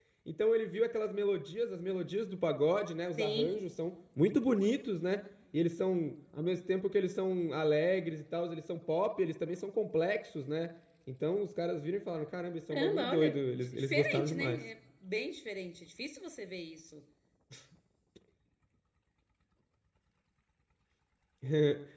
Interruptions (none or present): present